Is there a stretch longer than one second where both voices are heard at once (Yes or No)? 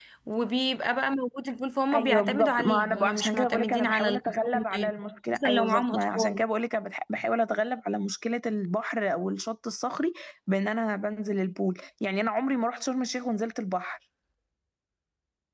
Yes